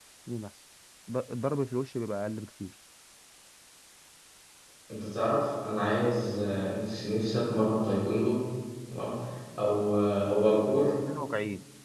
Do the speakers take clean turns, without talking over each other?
Yes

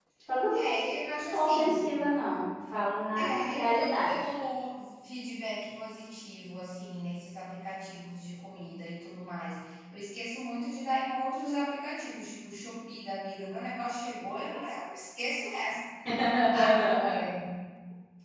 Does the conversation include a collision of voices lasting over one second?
Yes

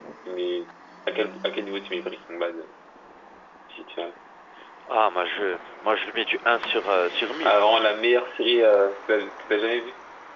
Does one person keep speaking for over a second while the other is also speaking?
No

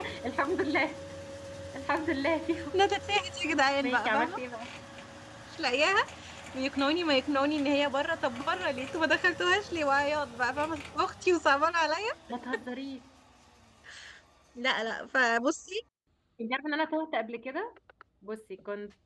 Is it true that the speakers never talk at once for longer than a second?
Yes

